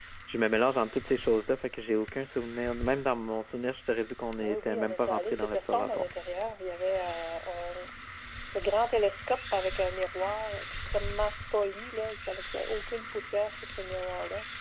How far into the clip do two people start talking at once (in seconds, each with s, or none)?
4.4 s